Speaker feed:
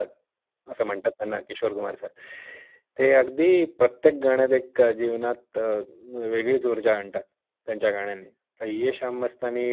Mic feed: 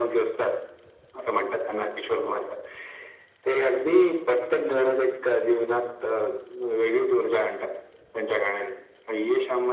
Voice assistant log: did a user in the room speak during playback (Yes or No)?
No